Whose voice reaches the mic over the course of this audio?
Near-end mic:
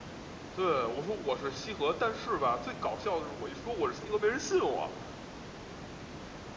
user only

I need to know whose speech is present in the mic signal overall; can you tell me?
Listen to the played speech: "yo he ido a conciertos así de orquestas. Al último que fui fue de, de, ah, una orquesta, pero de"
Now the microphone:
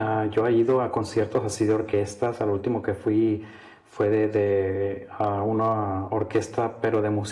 echo only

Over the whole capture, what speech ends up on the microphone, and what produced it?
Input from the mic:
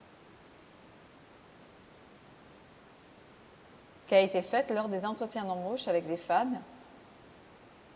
user only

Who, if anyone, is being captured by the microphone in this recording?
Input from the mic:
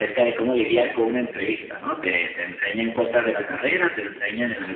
echo only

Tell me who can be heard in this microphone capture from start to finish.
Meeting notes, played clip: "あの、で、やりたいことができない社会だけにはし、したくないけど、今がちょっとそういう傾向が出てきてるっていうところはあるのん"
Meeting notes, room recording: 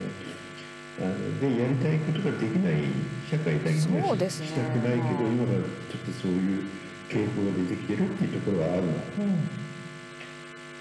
both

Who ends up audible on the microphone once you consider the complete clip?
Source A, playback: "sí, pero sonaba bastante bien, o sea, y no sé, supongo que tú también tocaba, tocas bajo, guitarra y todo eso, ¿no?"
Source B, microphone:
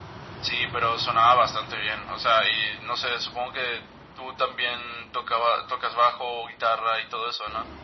echo only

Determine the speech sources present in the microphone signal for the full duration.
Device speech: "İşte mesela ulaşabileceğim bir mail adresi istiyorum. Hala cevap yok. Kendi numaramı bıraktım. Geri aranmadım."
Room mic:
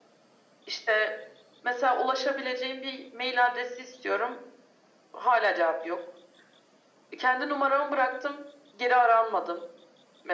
echo only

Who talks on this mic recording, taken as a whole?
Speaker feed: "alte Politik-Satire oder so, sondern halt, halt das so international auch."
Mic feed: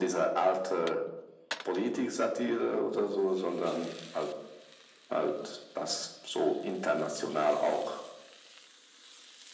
both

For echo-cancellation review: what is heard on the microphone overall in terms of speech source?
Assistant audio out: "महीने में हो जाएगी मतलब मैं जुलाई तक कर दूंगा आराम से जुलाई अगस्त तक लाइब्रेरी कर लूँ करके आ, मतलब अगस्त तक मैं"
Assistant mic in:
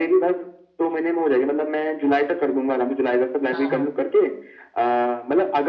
both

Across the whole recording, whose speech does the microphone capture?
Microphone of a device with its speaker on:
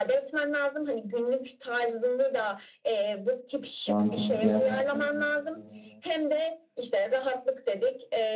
both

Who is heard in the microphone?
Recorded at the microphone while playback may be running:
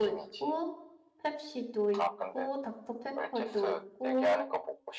both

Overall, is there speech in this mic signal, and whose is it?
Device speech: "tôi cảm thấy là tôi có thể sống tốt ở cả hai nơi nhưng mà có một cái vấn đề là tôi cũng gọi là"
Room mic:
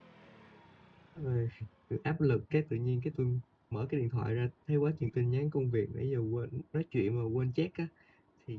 user only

